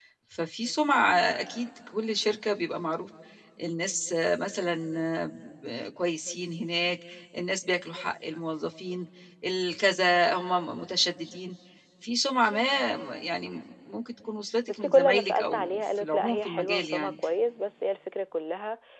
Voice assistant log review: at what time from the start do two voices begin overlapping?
14.7 s

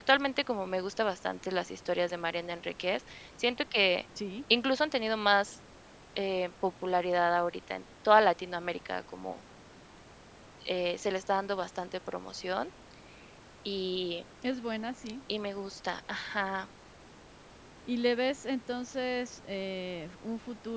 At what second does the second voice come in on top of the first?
none

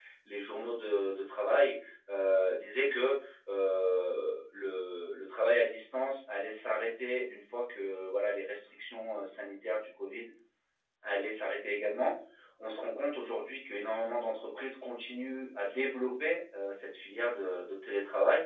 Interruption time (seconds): none

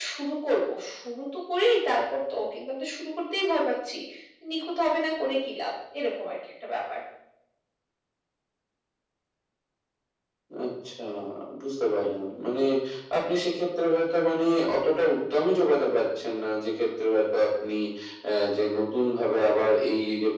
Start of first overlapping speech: none

